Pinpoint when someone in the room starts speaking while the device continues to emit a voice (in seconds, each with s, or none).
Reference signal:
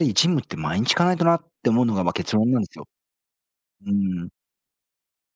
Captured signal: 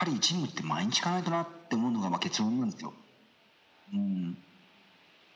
none